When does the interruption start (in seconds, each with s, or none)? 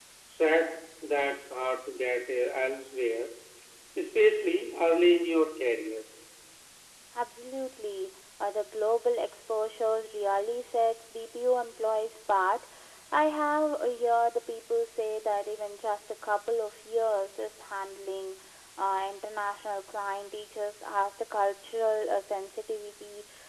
none